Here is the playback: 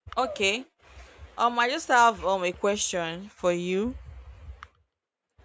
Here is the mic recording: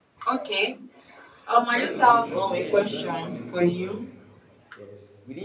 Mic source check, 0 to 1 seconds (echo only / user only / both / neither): echo only